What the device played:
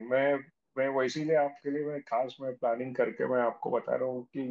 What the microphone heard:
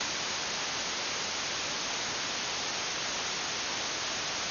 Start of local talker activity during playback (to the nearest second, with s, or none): none